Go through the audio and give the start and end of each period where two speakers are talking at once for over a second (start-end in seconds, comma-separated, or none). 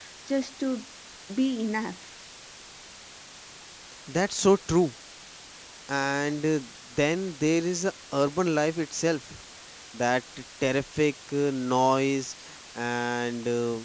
none